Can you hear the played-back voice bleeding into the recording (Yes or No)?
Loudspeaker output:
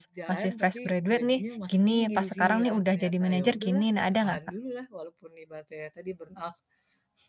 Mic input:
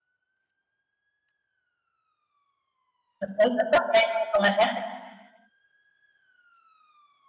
No